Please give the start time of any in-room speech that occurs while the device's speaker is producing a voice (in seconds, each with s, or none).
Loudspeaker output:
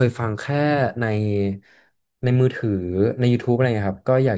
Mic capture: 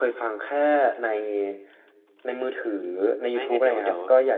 3.3 s